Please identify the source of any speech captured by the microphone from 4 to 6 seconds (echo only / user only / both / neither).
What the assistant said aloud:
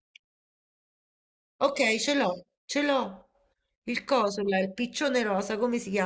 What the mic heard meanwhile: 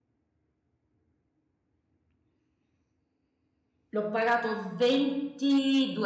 user only